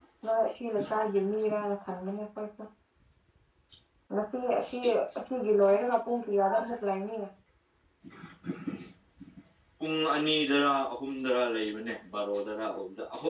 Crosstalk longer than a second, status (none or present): none